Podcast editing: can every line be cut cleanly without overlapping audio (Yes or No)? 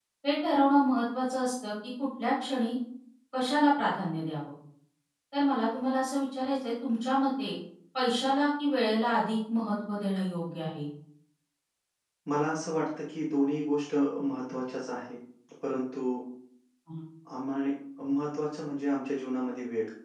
Yes